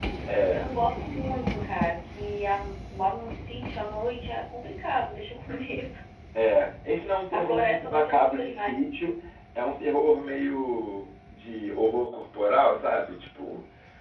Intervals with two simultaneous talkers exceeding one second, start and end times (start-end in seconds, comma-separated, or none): 7.3-8.8